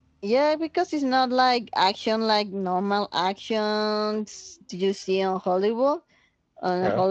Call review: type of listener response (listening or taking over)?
listening